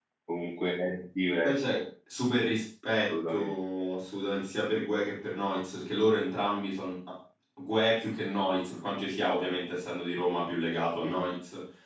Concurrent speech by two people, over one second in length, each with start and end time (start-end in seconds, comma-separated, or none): none